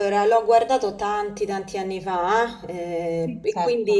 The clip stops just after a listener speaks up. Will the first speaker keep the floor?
Yes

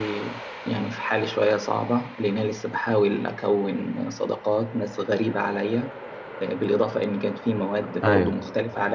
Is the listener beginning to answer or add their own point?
No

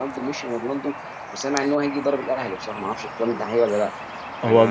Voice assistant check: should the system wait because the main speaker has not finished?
No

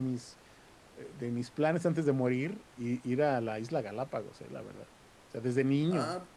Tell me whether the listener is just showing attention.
Yes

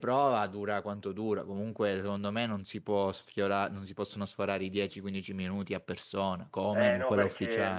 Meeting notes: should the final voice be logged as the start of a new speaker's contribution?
Yes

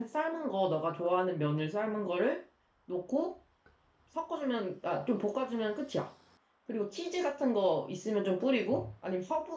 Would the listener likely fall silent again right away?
Yes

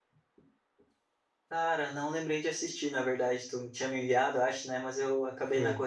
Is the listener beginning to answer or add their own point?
No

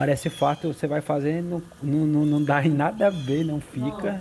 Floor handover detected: No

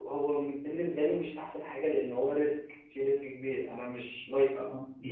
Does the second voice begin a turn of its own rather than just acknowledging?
Yes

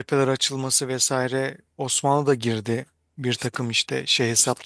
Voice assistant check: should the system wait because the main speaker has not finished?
No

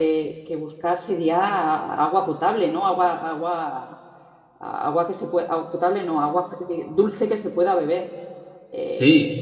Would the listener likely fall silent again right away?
No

